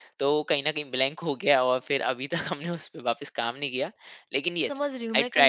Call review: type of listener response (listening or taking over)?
taking over